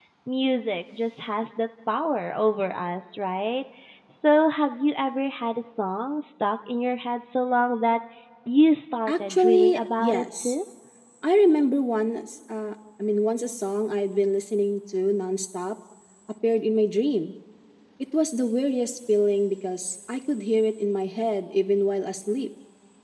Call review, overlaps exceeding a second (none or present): present